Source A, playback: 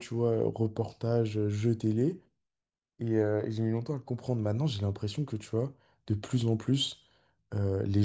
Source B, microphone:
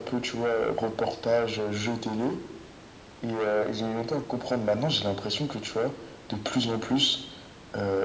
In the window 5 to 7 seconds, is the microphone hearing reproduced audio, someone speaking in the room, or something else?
echo only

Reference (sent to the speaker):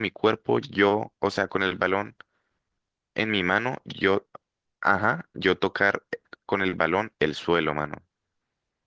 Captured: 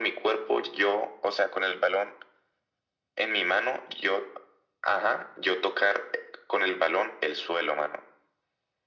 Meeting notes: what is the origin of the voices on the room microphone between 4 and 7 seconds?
echo only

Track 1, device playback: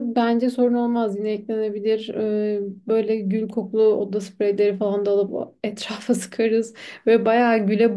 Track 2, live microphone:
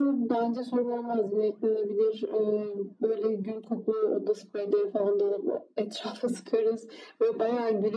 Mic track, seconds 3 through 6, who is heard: echo only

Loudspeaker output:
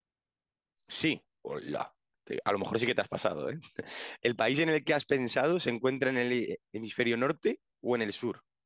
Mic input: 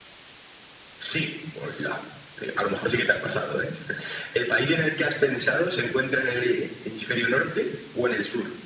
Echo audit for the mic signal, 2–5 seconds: echo only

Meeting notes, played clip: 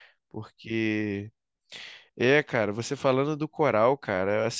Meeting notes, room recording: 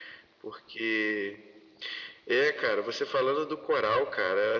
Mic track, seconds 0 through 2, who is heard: echo only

